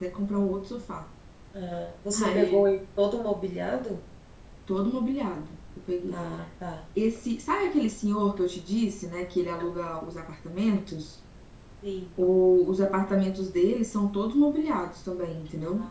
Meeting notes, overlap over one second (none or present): none